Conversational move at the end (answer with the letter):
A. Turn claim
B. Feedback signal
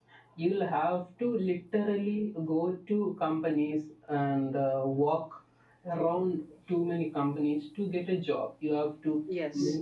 B